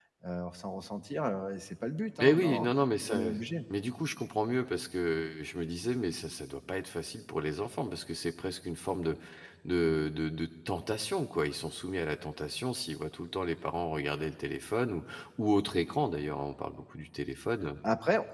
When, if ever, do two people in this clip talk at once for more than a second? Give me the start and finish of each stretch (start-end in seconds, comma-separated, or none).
none